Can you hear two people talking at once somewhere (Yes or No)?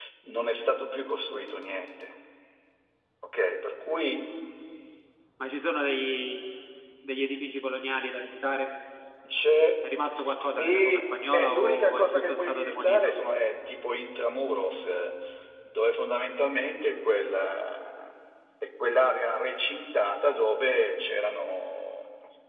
Yes